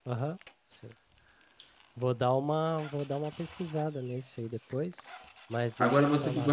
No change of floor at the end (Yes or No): No